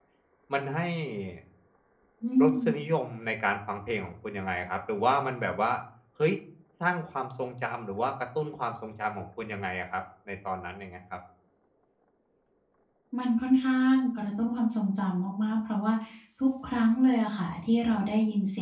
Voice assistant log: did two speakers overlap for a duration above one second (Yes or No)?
No